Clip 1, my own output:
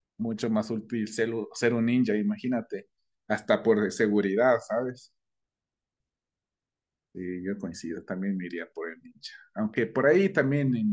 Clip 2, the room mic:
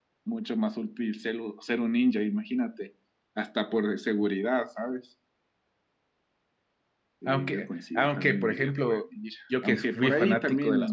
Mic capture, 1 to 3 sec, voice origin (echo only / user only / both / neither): echo only